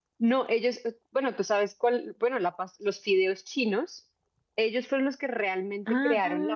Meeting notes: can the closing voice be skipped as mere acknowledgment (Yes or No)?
Yes